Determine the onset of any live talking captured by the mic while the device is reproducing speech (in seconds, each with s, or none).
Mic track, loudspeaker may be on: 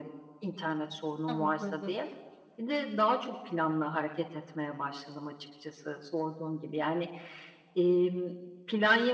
1.3 s